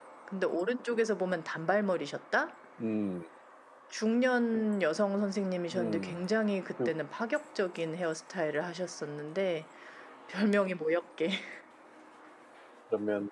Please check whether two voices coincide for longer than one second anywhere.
No

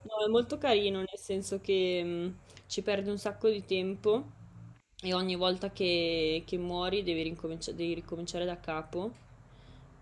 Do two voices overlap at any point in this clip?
No

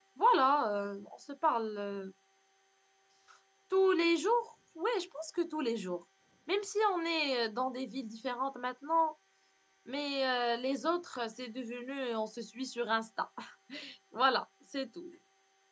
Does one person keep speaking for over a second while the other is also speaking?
No

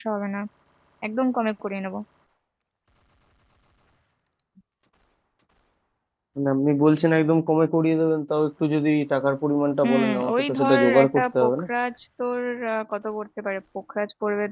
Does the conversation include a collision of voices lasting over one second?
Yes, from 9.8 s

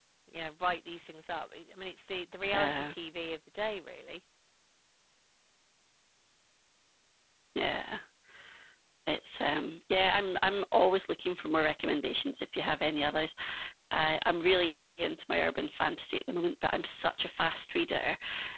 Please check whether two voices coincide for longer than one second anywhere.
No

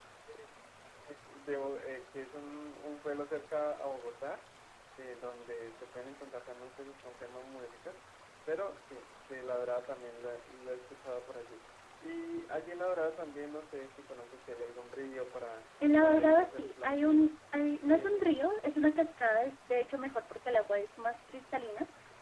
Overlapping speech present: Yes, from 15.8 s

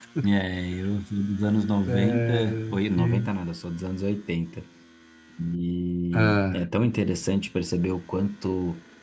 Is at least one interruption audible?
Yes, from 1.9 s

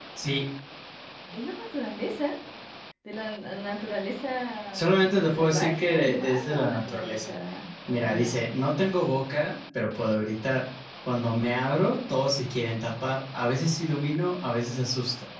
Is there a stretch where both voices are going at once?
Yes, from 5.4 s

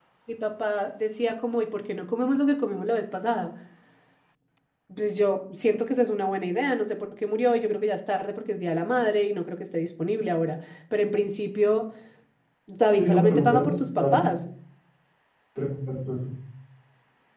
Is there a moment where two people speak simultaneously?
Yes, from 12.9 s

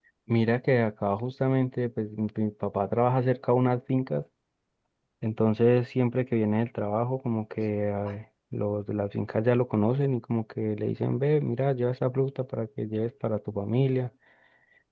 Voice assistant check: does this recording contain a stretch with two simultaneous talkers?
No

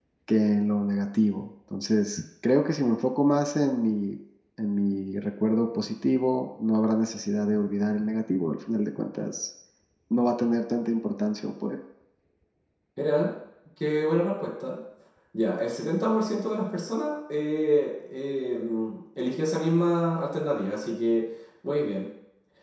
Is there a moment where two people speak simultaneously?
No

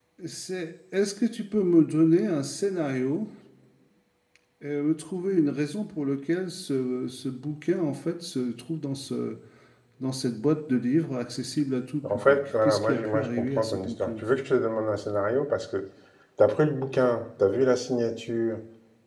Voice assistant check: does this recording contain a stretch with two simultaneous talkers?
Yes, from 12.0 s

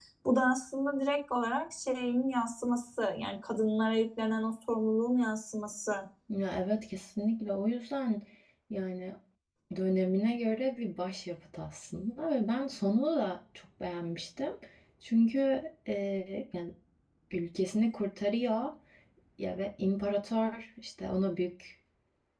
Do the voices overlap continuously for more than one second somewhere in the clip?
No

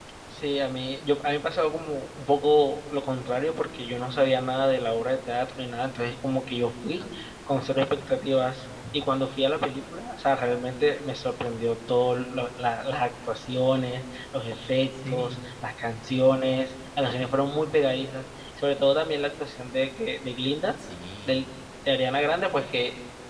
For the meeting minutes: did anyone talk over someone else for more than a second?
No

